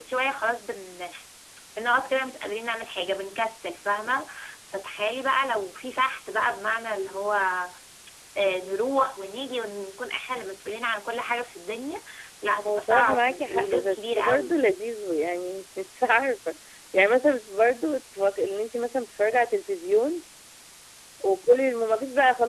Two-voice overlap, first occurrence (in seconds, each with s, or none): 12.6 s